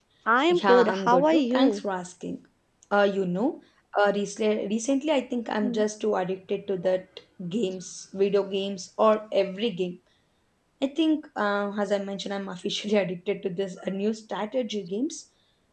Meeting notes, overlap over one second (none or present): present